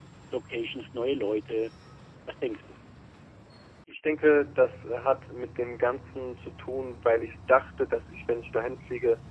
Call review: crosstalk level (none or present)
none